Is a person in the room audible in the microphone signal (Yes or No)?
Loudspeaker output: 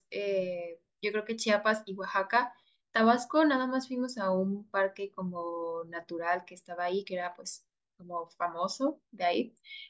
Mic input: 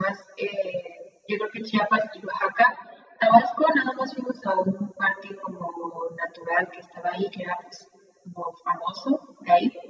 No